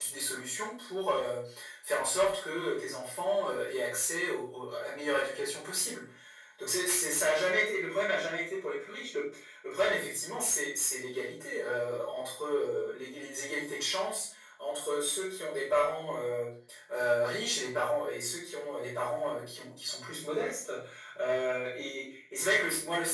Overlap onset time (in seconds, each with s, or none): none